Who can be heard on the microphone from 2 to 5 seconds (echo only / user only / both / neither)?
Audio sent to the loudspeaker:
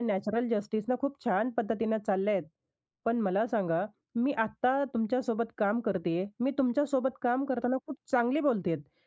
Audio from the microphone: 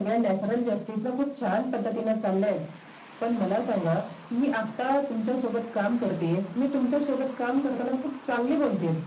echo only